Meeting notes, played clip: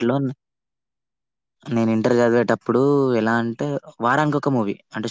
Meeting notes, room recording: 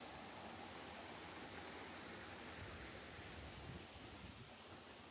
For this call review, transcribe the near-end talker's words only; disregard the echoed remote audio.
none

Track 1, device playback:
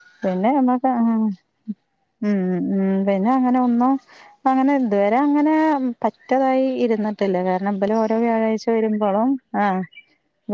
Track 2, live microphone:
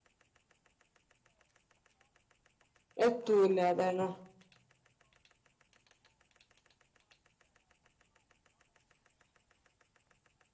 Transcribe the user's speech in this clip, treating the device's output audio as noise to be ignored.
എത്തൂല അതാണ്

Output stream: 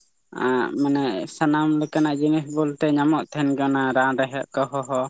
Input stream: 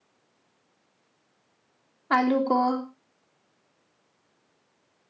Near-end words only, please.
ᱟᱹᱞᱩ ᱠᱚ

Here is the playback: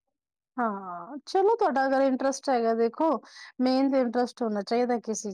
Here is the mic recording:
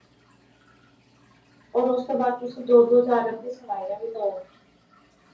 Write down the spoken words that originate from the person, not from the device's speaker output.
ਔਰ ਓਸ ਤੋਂ ਬਾਦ ਤੁਸੀਂ ਦੋ-ਦੋ ਹਜਾਰ ਅਪਨੀ ਸਵਾਈਆਂ ਵੀ ਦੋ

